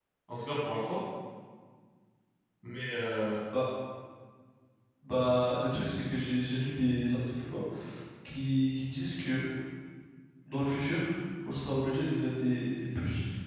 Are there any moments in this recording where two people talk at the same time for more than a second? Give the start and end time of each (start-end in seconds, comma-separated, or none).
none